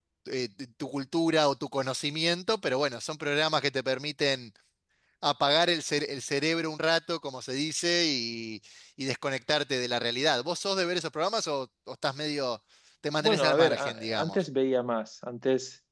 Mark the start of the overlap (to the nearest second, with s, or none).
13 s